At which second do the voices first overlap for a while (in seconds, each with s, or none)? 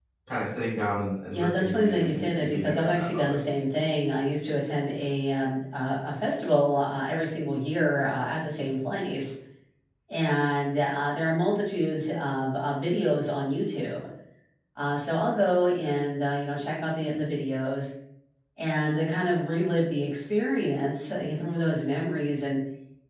1.3 s